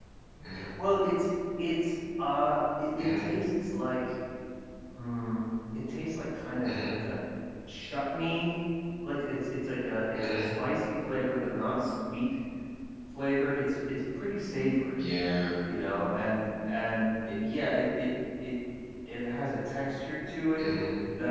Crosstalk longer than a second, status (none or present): none